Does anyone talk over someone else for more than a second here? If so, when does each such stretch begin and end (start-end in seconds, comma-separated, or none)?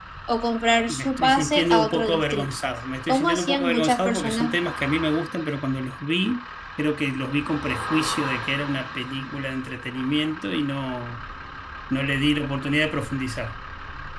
0.9-2.5, 3.1-4.6